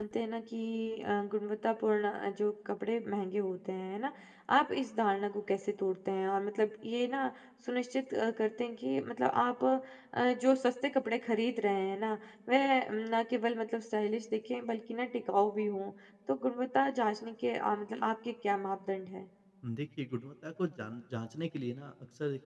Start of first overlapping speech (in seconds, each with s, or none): none